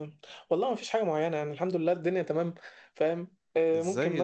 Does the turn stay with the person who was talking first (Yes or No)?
No